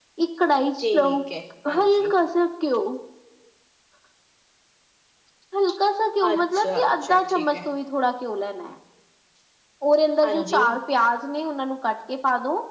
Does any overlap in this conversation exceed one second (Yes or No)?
Yes